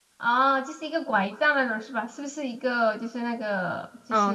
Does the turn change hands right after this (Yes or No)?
Yes